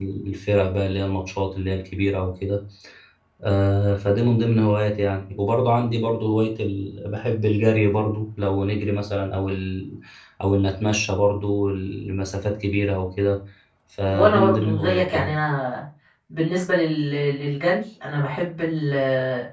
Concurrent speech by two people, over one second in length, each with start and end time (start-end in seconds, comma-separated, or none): 14.1-15.3